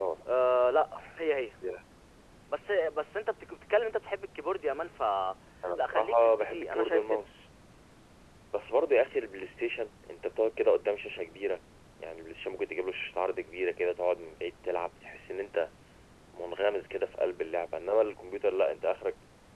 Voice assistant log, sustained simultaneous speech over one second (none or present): present